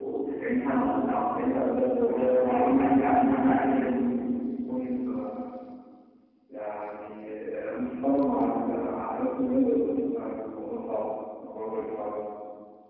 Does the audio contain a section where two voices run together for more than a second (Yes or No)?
Yes